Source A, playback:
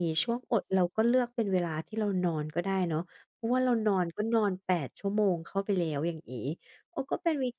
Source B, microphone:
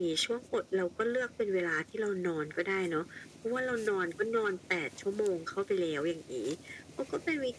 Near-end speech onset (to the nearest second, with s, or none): none